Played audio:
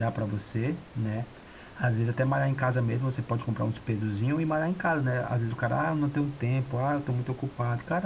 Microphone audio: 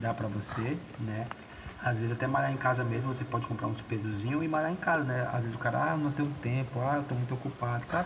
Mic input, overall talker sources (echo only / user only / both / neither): echo only